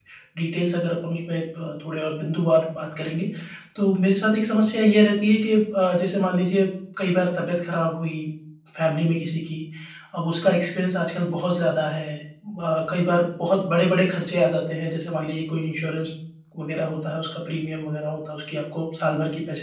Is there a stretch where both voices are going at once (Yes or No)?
No